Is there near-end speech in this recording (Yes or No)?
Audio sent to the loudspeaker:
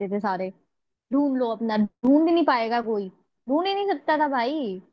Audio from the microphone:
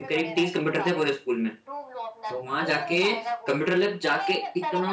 Yes